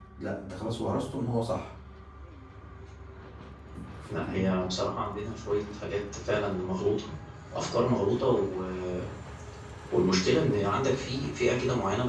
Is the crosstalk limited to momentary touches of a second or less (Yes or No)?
Yes